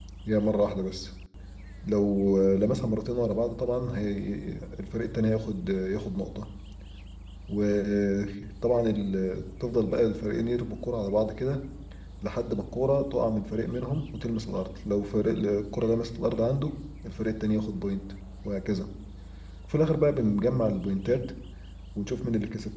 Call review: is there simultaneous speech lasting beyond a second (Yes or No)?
No